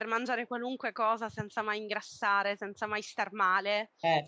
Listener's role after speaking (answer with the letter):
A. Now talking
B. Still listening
B